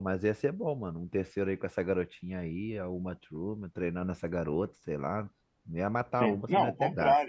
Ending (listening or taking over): taking over